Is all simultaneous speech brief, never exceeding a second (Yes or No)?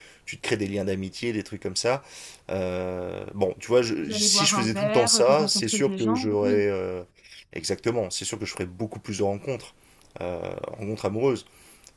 No